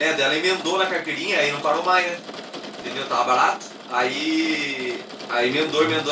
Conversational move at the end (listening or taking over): listening